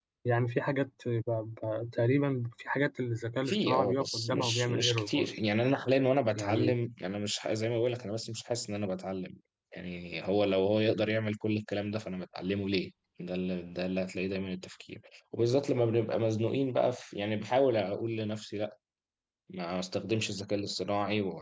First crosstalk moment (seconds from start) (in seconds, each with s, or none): 3.5 s